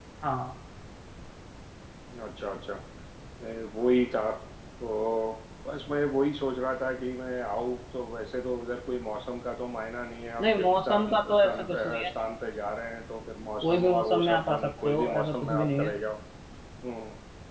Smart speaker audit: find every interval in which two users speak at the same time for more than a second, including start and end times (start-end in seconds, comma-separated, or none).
10.4-12.1, 13.6-15.9